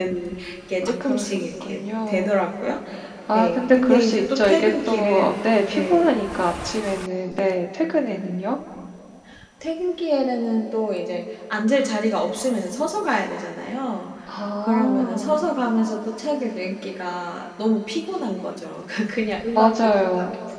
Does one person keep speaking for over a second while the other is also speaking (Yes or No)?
Yes